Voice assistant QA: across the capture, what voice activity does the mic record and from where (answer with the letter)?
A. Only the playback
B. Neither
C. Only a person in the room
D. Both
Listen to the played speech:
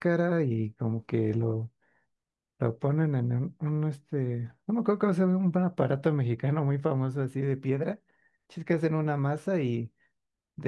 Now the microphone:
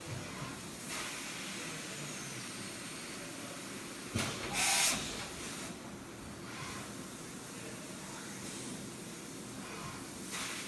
B